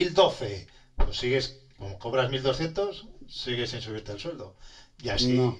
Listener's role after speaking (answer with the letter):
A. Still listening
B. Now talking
A